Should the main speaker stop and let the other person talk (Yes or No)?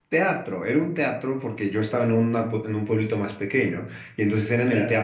No